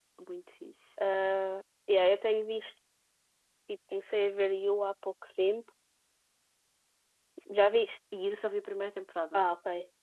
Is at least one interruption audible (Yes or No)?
No